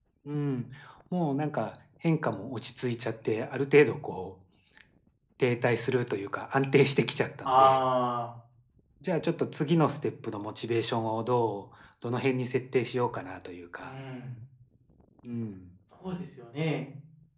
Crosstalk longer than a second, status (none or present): none